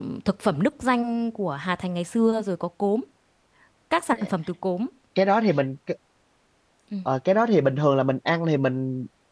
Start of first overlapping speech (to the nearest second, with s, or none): none